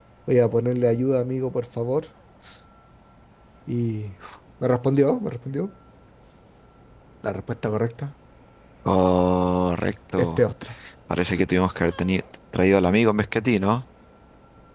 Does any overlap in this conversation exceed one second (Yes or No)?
No